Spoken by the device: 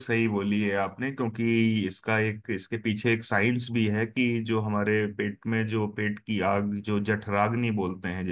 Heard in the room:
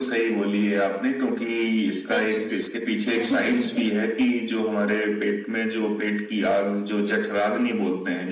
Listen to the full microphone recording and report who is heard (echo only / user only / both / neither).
both